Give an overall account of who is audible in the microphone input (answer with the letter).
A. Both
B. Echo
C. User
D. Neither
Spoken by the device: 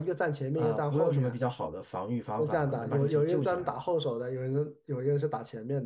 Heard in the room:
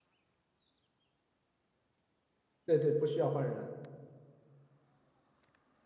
C